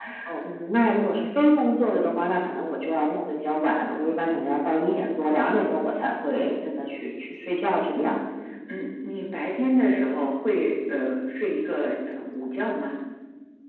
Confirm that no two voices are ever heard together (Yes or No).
Yes